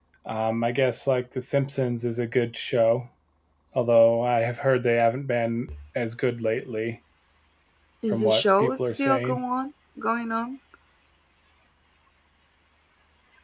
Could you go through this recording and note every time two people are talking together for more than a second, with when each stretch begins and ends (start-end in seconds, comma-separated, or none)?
8.1-9.4